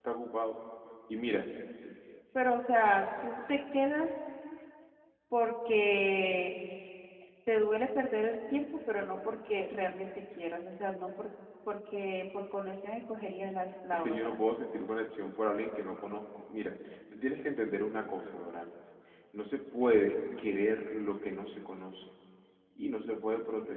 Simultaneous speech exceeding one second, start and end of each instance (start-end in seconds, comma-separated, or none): none